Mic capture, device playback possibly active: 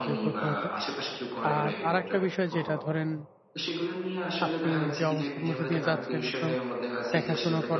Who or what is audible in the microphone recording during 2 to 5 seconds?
both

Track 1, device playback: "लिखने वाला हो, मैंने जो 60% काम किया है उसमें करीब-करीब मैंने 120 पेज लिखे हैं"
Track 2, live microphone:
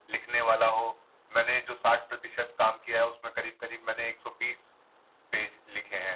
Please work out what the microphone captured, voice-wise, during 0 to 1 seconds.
echo only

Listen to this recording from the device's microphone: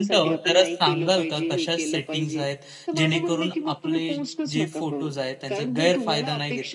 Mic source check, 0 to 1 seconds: both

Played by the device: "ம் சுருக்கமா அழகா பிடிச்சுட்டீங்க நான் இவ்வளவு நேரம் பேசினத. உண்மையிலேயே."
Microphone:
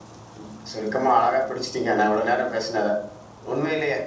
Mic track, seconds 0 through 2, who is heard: echo only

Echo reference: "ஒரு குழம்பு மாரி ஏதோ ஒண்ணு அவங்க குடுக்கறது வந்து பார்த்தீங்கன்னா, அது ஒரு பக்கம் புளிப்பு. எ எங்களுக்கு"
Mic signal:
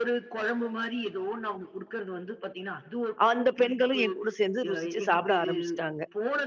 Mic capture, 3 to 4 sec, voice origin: both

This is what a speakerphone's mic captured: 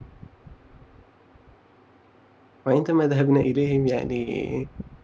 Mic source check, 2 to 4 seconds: user only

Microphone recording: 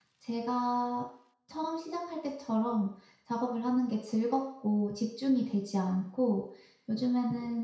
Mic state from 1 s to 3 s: user only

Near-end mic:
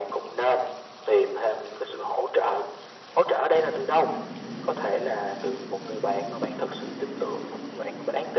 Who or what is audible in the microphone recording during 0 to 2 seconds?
echo only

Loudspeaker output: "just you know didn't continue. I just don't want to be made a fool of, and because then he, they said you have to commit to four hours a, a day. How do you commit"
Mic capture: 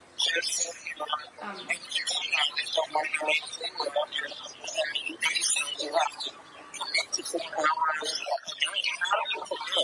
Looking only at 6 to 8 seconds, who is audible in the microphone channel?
echo only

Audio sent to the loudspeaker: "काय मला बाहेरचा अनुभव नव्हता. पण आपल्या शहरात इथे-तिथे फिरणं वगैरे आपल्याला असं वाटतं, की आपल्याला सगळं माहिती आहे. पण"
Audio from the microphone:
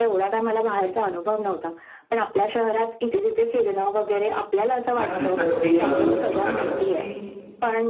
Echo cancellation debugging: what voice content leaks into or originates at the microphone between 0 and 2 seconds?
echo only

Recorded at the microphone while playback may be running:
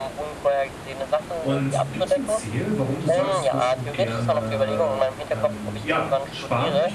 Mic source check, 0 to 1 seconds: echo only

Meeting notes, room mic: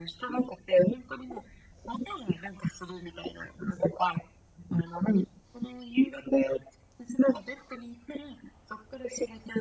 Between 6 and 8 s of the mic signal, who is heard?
echo only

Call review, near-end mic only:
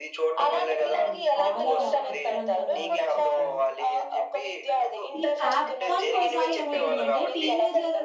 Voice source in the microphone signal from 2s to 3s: both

